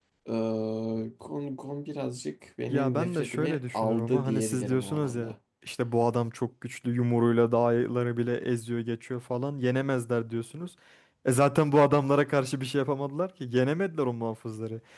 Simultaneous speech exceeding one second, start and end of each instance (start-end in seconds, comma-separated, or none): 2.7-5.3